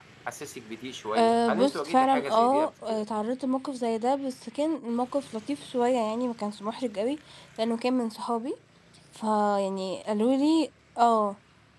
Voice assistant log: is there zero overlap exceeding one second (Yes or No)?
No